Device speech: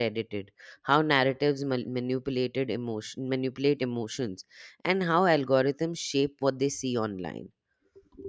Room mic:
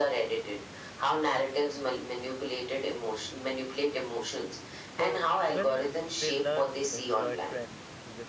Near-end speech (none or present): present